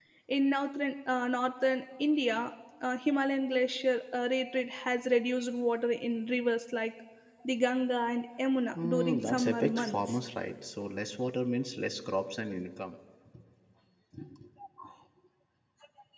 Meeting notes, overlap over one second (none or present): present